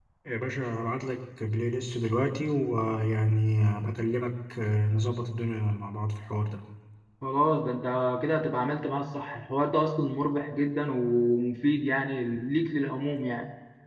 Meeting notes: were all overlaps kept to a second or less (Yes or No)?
Yes